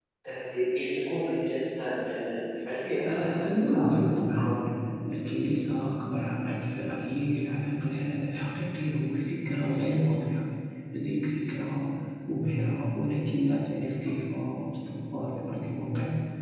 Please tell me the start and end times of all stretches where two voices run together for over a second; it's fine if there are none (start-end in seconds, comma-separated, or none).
3.1-4.6